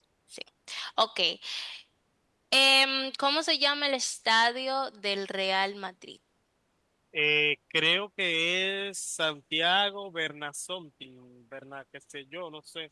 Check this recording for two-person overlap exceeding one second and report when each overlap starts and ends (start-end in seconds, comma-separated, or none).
none